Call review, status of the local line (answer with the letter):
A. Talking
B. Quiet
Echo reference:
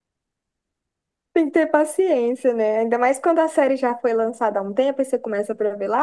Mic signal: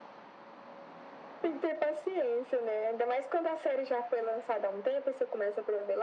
B